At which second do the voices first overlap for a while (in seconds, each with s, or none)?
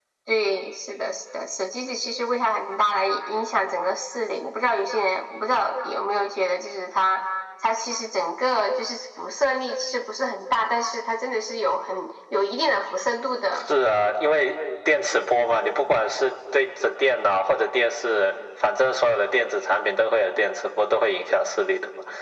none